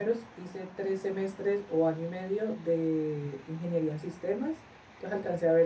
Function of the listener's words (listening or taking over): listening